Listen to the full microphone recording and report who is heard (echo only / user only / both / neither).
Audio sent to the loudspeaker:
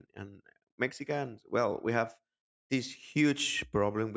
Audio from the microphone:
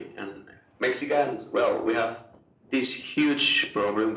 echo only